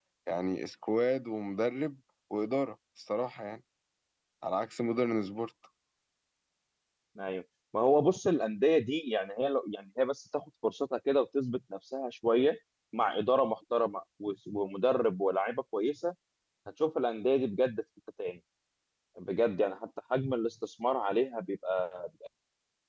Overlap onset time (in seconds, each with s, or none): none